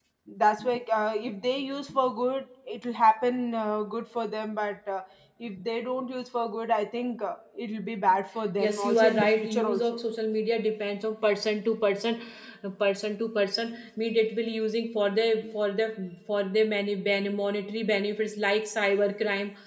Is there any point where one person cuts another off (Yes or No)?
Yes